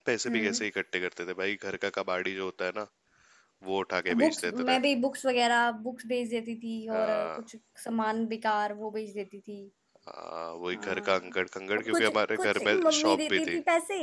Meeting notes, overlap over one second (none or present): present